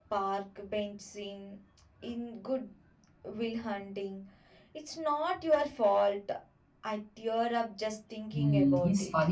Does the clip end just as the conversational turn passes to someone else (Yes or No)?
Yes